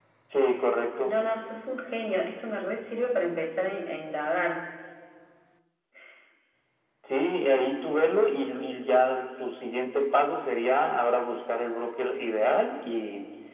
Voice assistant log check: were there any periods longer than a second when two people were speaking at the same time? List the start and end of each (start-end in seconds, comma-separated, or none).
none